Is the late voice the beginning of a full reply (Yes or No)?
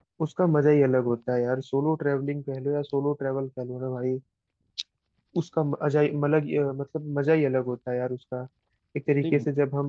No